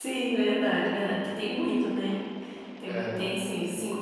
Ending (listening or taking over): listening